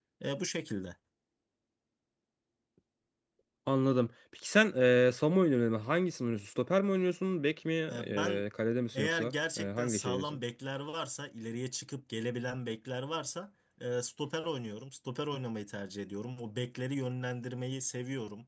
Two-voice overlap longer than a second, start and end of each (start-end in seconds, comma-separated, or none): 8.9-10.4